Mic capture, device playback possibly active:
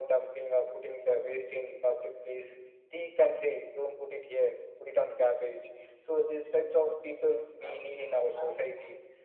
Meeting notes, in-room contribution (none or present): none